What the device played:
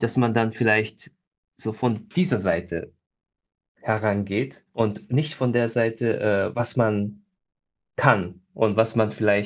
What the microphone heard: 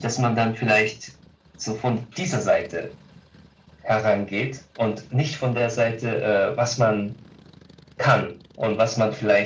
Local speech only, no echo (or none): none